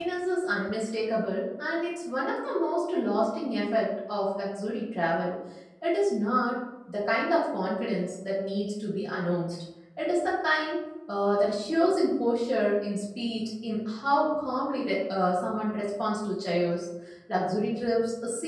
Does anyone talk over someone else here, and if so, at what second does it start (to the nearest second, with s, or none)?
none